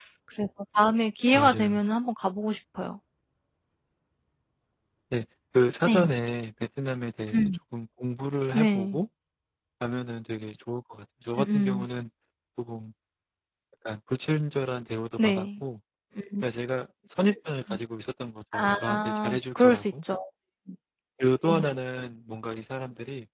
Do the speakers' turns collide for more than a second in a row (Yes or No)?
Yes